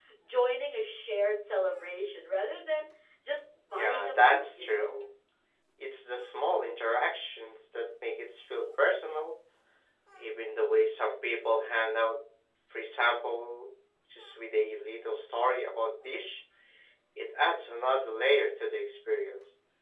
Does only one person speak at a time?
No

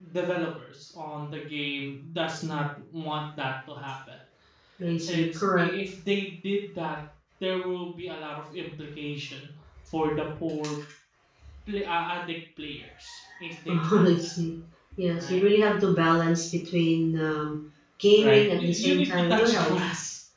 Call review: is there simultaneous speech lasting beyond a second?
Yes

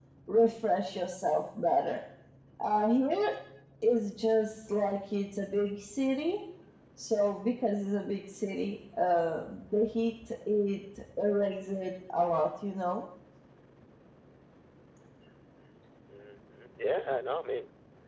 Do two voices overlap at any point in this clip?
No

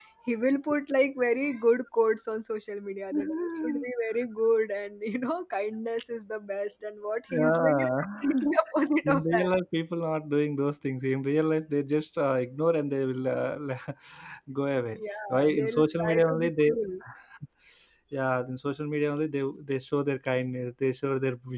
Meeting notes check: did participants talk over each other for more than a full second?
Yes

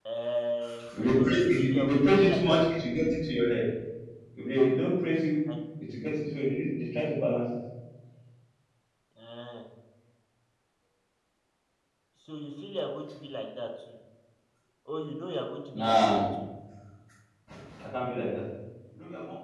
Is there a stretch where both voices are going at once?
Yes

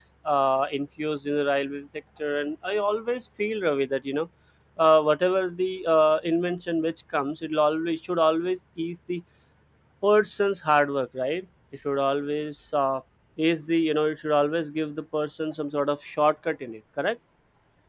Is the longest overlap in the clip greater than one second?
No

